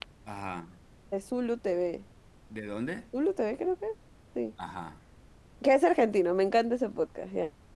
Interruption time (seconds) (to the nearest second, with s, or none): none